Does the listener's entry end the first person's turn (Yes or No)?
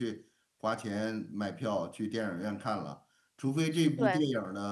No